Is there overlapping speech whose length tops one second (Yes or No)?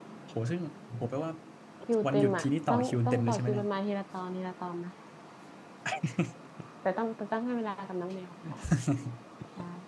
Yes